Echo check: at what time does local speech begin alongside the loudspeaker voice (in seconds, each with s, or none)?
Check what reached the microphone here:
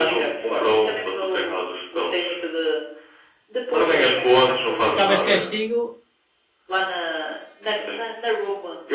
4.9 s